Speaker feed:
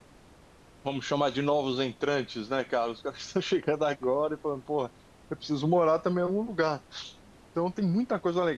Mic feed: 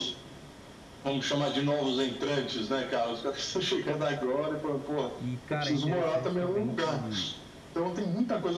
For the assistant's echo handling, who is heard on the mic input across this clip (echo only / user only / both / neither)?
both